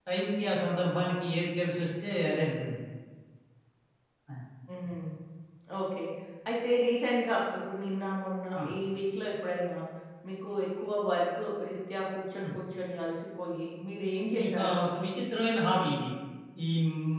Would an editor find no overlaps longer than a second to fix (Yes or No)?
Yes